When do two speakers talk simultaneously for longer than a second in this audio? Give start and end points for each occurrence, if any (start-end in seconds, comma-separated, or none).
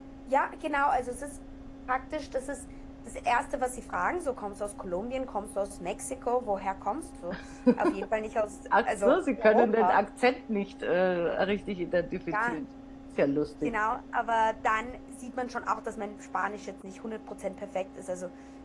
8.7-10.1